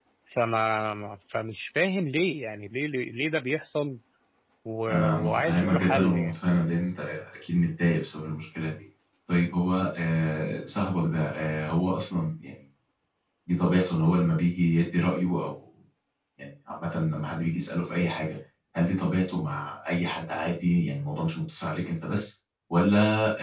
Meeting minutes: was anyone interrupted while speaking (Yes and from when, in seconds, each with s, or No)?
Yes, from 4.9 s